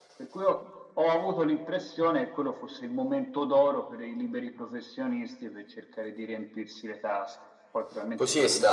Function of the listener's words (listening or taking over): taking over